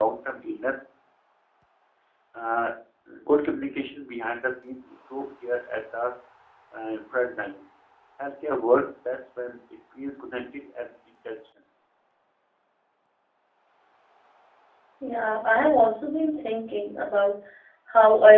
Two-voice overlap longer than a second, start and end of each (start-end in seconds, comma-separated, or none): none